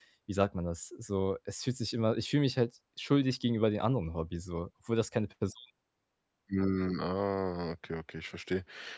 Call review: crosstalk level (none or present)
none